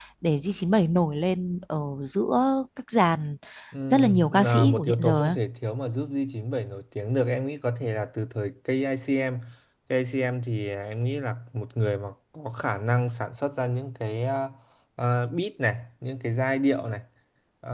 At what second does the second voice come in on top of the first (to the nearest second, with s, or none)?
4 s